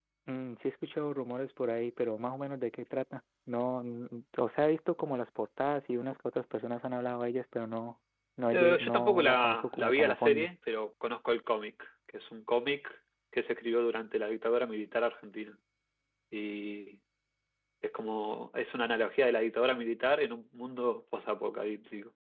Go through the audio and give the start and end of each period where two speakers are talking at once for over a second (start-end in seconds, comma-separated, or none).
8.5-10.5